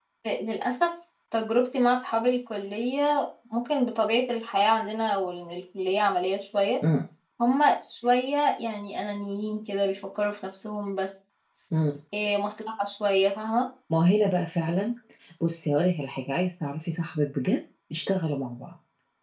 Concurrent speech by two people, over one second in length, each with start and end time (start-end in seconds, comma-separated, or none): none